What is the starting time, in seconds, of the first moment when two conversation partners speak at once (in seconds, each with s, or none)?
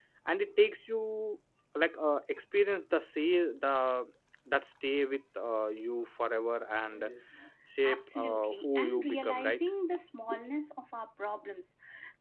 7.8 s